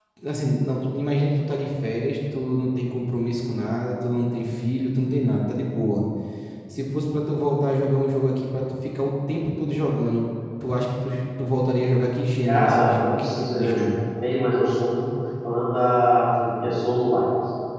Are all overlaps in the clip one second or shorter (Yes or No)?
No